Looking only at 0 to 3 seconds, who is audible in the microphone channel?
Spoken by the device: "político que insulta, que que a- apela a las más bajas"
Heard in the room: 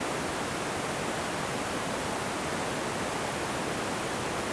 neither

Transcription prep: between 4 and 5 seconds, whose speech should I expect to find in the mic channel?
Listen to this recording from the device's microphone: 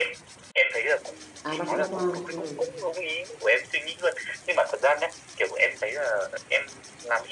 echo only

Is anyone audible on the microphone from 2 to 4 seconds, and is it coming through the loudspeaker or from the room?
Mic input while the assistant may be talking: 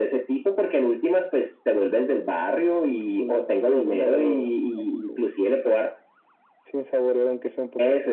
echo only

